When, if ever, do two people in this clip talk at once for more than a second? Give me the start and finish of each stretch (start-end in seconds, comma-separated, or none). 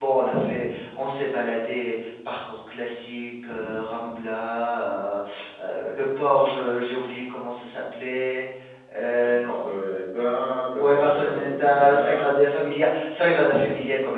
10.8-12.4